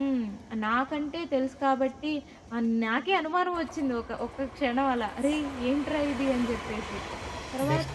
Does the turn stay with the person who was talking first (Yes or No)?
No